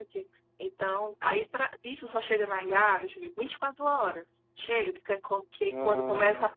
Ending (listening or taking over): listening